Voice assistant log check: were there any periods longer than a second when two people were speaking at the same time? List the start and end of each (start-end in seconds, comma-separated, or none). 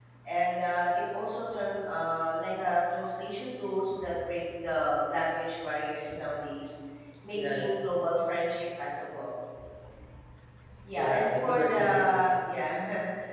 11.0-12.3